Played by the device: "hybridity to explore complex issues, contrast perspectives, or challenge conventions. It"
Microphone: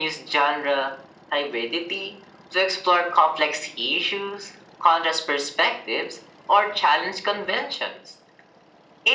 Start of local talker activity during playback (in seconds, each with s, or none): none